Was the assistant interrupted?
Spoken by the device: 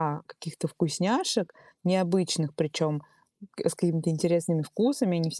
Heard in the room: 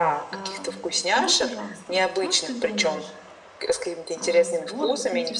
Yes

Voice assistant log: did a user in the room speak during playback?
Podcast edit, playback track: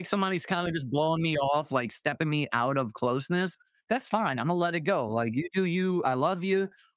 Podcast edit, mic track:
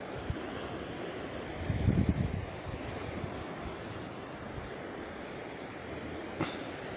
No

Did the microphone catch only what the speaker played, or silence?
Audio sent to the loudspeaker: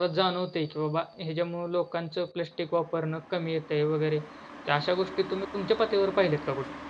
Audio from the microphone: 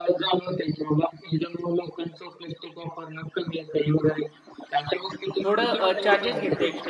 No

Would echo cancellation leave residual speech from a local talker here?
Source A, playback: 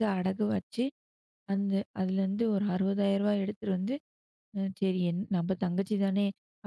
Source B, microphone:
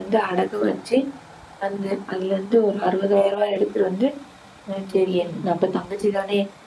Yes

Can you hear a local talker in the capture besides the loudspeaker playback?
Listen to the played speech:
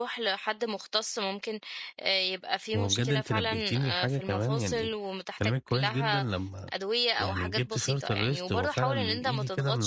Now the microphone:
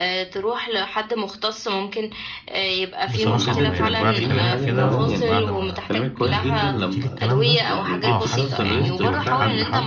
Yes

